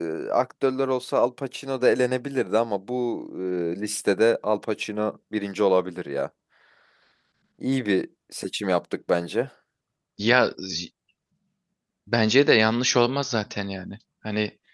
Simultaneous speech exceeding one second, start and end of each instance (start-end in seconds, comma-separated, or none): none